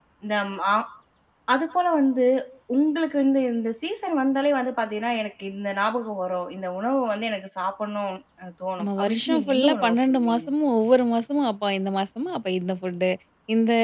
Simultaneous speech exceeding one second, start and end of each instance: 8.8-10.4

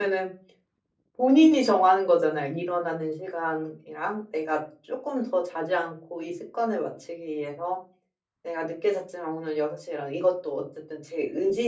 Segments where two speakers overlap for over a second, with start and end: none

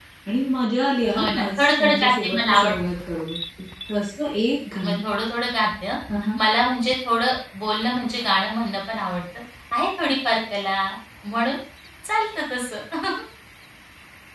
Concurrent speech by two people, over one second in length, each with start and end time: 1.1-2.7

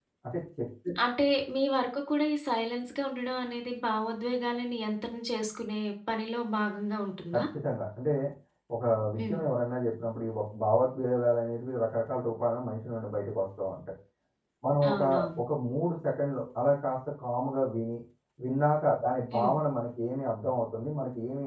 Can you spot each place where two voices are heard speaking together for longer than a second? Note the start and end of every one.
none

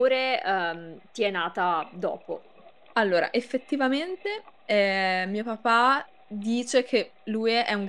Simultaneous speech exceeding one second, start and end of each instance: none

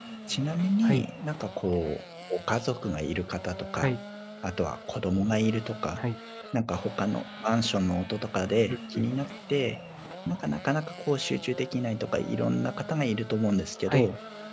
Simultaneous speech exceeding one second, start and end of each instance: none

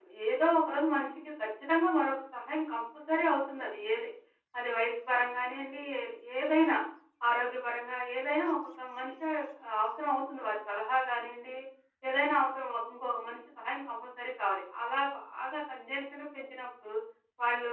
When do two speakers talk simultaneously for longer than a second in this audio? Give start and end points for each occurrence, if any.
none

